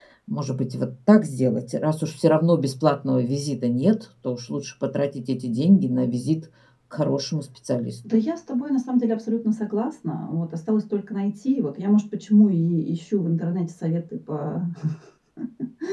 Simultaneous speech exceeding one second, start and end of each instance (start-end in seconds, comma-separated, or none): none